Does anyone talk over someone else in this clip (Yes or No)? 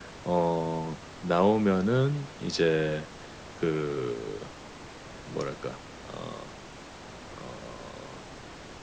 No